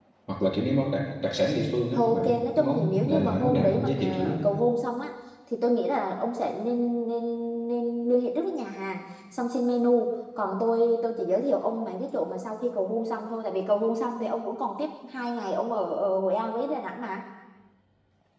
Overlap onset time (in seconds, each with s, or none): 1.9 s